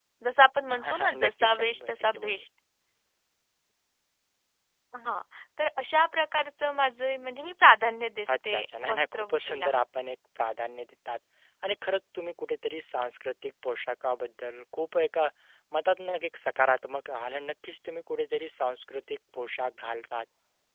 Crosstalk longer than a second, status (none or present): present